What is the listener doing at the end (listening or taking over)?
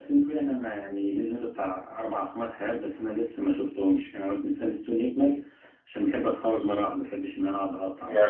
taking over